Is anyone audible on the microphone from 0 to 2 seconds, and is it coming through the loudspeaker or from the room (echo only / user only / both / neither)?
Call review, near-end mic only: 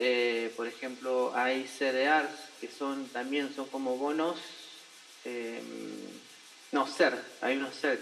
echo only